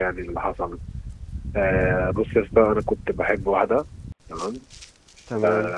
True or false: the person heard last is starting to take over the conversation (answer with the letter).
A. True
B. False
B